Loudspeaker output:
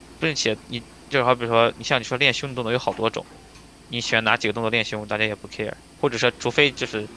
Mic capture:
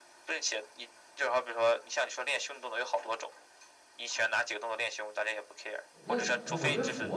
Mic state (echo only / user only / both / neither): both